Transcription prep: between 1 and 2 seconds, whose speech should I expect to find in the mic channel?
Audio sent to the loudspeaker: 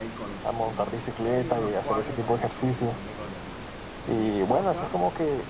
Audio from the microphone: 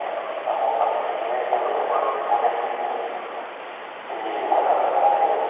echo only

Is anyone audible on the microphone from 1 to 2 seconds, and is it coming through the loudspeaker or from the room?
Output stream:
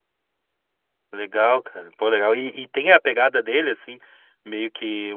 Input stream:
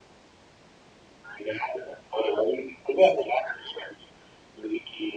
echo only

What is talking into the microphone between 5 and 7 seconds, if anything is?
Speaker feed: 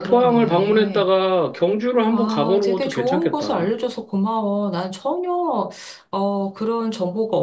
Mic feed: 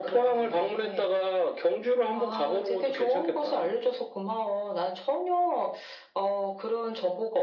echo only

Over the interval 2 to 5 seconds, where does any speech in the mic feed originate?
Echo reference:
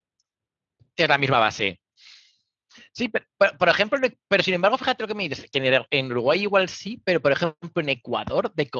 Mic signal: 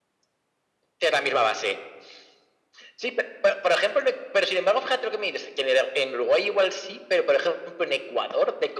echo only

